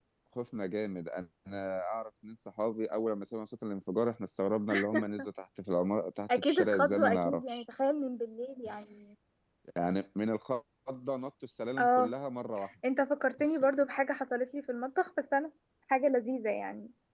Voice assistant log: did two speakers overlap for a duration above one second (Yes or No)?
Yes